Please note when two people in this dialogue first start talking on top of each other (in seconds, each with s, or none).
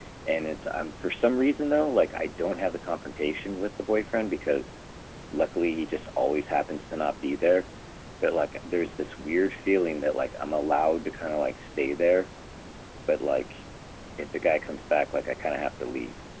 none